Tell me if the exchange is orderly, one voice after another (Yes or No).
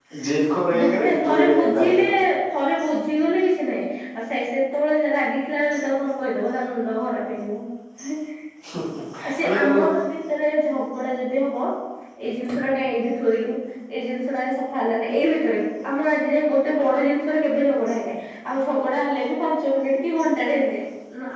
No